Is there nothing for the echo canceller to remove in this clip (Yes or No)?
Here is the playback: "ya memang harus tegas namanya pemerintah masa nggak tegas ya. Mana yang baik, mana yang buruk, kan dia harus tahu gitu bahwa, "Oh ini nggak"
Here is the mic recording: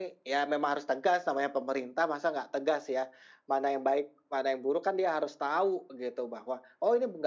No